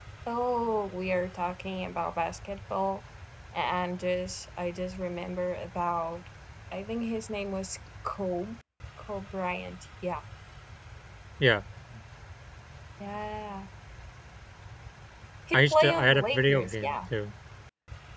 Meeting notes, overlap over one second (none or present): present